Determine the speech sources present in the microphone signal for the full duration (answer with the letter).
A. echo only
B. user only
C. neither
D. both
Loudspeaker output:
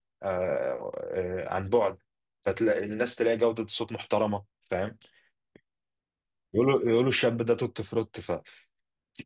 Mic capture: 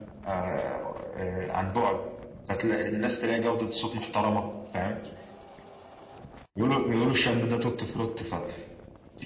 A